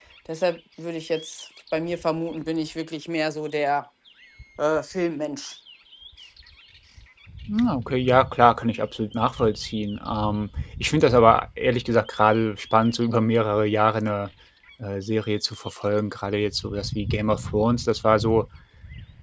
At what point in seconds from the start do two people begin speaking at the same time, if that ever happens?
none

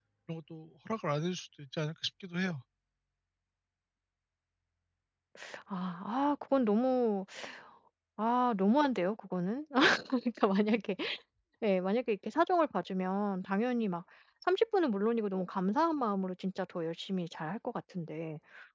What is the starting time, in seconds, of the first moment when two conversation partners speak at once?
none

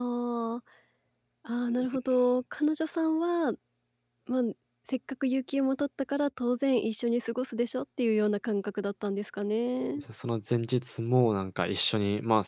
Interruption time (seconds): none

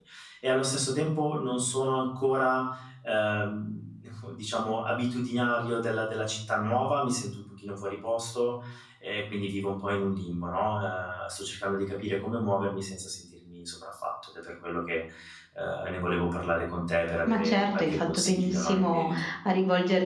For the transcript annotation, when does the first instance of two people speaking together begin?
17.3 s

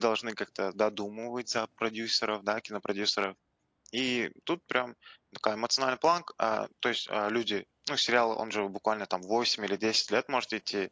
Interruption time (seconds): none

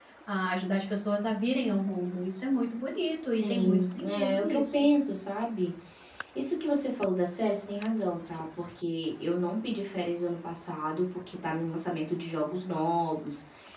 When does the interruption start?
3.3 s

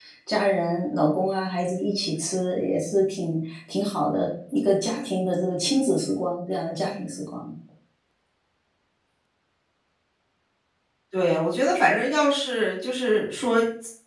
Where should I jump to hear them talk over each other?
none

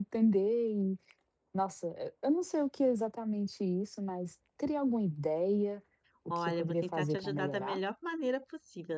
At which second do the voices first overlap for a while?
6.3 s

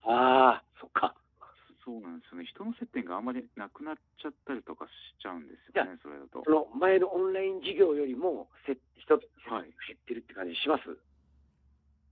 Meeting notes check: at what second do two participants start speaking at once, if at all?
none

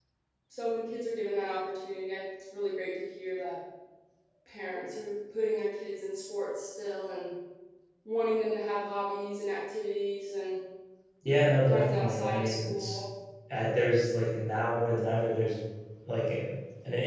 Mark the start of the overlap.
11.7 s

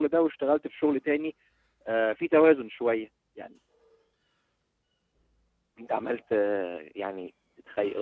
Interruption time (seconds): none

